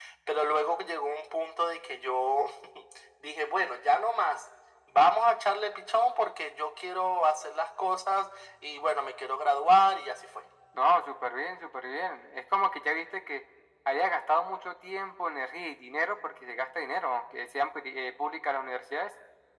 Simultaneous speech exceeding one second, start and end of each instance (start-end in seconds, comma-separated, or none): none